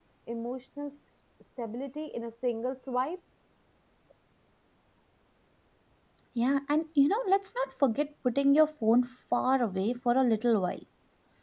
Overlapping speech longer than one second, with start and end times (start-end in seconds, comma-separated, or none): none